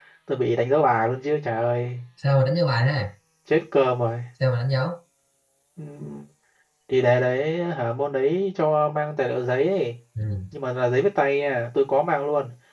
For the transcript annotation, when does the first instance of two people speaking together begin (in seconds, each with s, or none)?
none